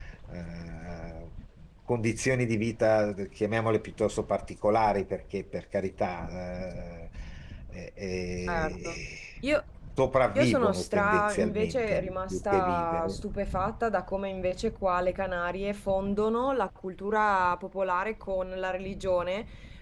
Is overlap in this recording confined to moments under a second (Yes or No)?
No